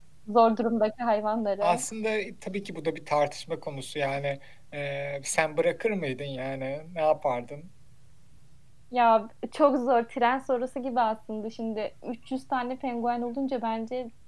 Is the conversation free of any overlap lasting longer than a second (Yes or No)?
Yes